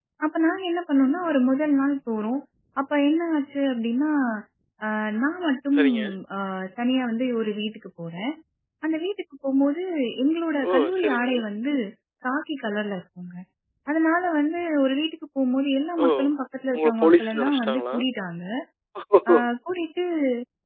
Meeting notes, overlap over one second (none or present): present